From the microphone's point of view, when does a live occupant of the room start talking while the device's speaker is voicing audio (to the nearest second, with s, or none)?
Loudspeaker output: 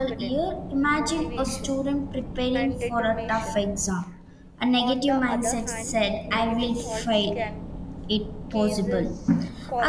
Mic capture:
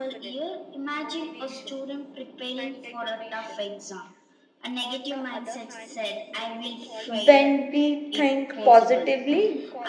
7 s